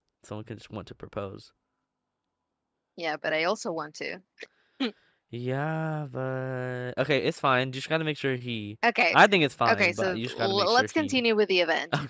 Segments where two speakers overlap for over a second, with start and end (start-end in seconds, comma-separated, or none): 9.7-11.1